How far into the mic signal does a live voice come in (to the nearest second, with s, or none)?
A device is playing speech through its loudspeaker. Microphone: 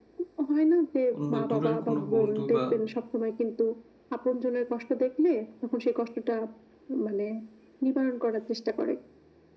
1 s